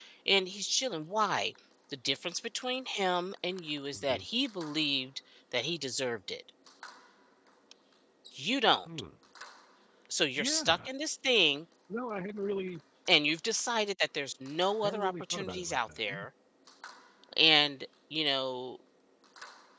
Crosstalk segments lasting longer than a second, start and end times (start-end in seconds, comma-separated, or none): 14.8-16.2